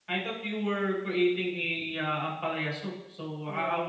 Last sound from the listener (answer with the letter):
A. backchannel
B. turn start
A